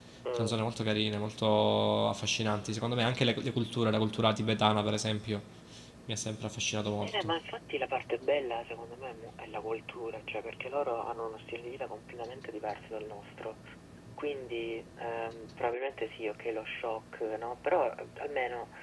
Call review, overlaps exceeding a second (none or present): none